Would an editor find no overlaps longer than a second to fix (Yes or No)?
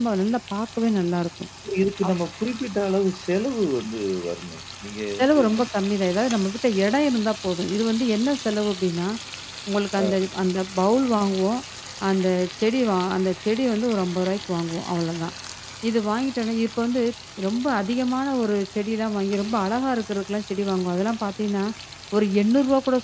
Yes